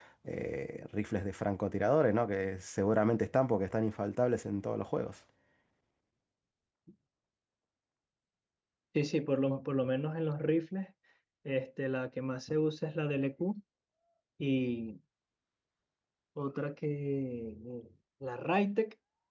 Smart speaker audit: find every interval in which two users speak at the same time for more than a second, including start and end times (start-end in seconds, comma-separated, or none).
none